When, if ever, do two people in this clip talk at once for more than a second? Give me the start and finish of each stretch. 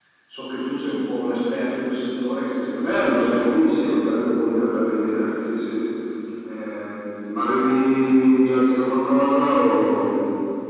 2.6-5.4

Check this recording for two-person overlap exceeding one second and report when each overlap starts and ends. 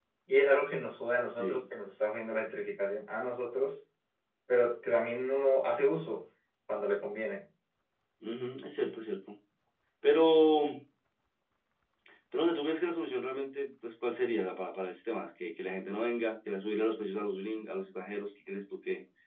none

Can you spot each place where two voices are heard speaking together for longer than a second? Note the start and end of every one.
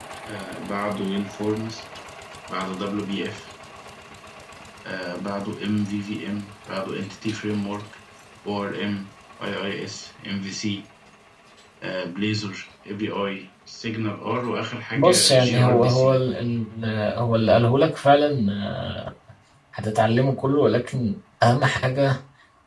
15.0-16.2

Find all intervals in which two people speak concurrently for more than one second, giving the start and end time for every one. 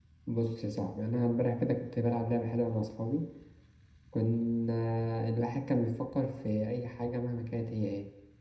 none

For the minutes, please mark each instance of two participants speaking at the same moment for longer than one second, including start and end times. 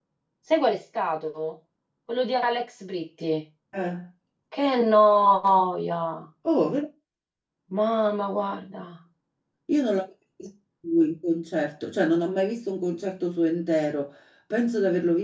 none

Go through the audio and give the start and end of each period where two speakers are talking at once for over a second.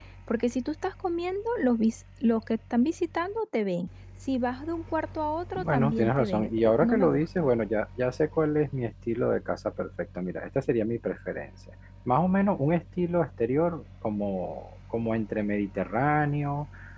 5.6-7.5

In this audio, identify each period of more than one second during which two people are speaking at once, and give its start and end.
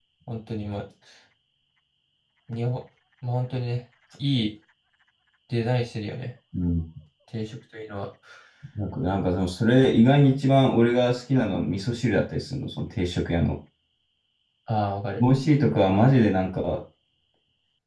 none

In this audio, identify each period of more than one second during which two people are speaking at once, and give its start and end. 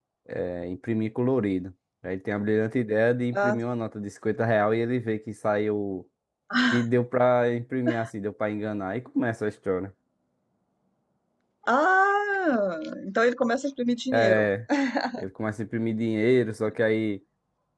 none

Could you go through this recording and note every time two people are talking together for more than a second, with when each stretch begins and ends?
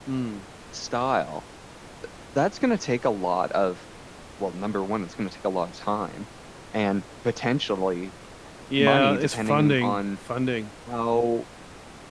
8.8-10.0

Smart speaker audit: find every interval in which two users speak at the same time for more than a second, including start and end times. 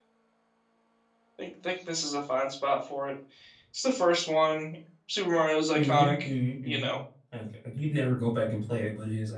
none

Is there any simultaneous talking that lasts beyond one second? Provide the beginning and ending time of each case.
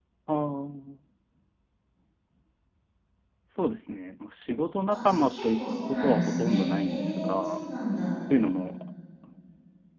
4.9-7.6

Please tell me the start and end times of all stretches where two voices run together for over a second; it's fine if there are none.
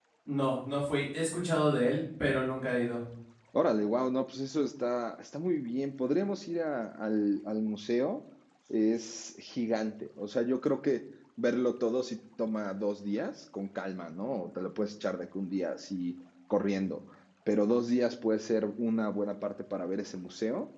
none

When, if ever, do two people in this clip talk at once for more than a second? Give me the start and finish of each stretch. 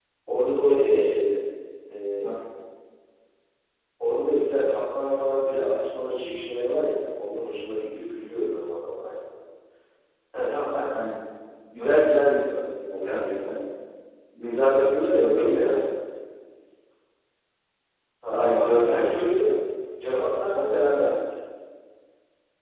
14.5-15.8, 18.3-19.5

